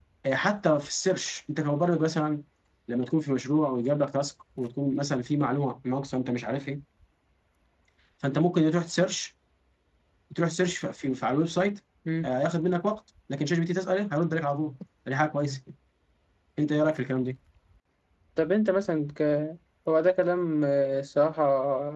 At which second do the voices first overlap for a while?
none

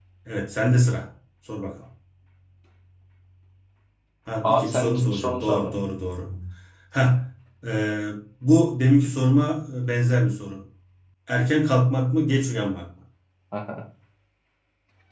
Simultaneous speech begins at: 4 s

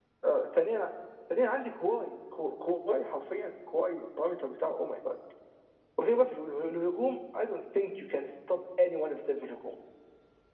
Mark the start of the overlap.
none

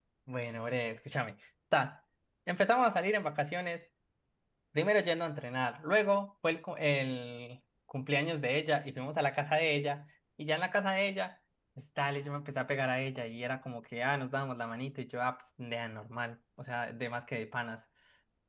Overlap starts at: none

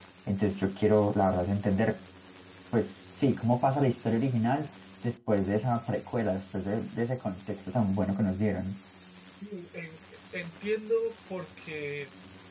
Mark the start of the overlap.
none

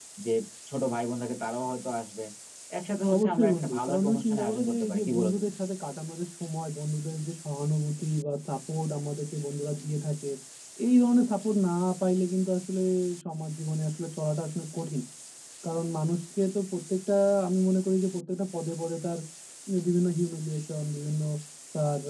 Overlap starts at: 3 s

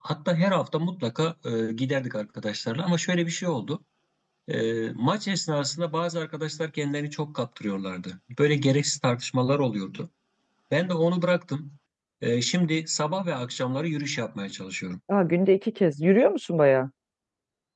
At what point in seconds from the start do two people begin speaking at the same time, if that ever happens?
none

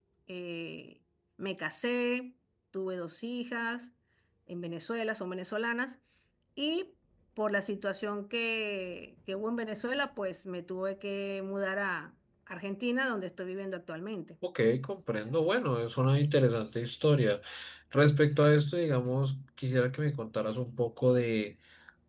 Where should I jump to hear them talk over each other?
none

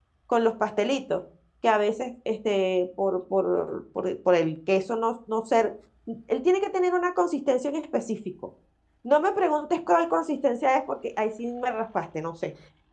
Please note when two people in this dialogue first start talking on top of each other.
none

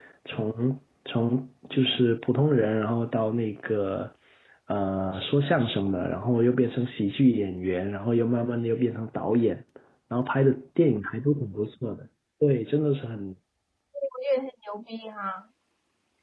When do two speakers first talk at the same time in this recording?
none

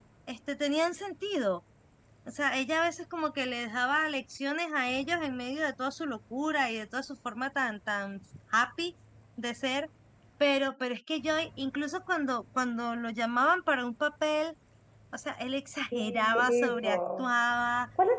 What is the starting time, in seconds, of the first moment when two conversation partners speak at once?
16 s

